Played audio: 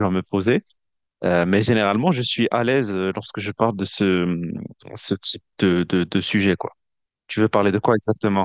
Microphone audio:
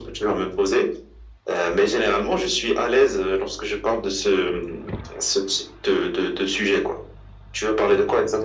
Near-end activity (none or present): none